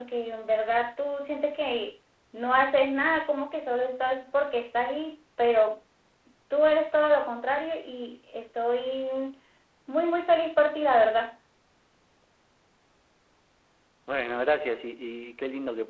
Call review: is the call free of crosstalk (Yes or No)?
Yes